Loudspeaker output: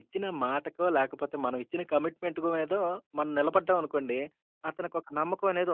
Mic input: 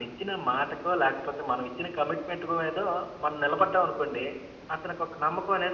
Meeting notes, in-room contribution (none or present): none